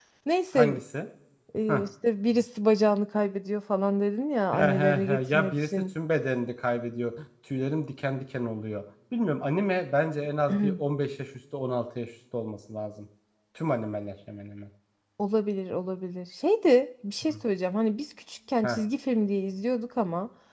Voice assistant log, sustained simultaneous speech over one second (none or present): present